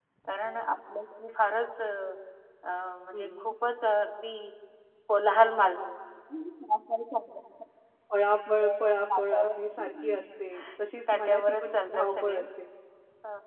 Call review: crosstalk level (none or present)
present